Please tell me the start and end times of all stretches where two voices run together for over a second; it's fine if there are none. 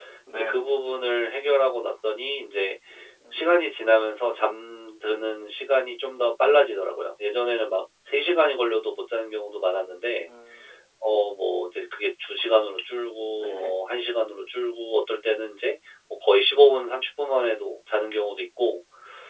none

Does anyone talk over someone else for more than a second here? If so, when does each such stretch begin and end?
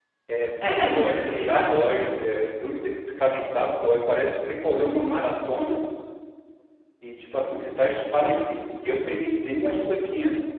0.7-2.1

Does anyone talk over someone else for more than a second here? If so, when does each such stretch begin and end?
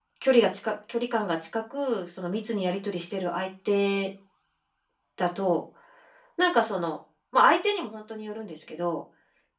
none

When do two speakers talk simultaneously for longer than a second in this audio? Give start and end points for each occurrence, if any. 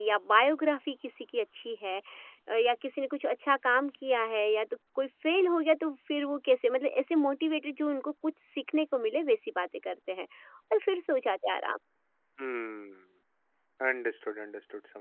none

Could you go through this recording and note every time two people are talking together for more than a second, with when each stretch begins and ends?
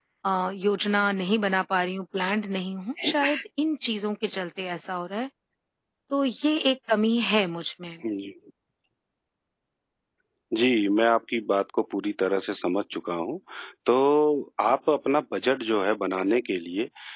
none

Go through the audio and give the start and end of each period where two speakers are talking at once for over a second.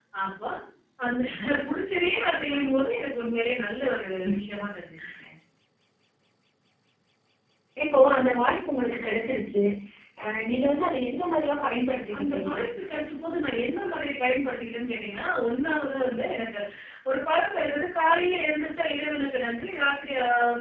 none

